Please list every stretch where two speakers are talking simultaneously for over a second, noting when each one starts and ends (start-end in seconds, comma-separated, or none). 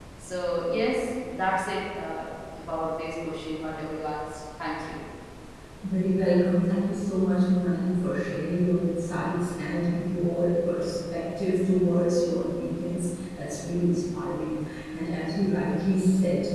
none